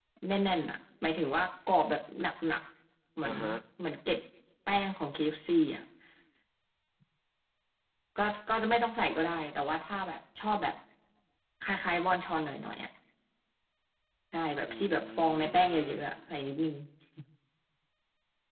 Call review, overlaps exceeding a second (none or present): present